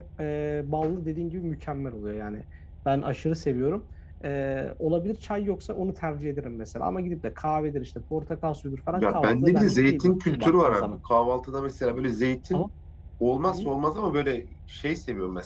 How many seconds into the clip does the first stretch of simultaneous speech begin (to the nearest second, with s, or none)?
9 s